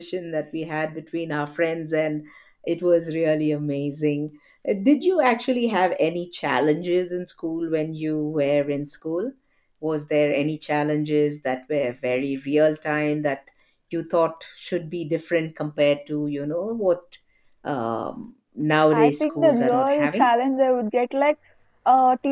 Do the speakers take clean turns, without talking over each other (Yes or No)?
No